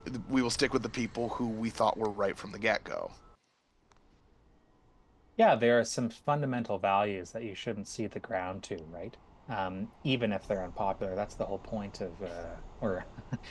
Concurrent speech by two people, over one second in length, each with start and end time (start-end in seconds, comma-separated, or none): none